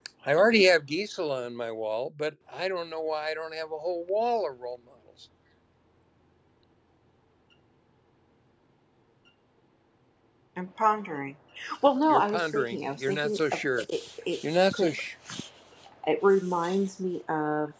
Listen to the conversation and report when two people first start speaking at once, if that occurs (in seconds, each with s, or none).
12.1 s